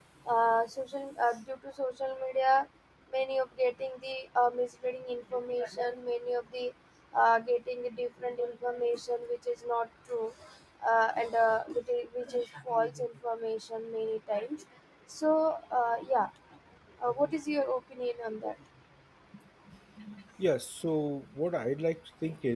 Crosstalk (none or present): none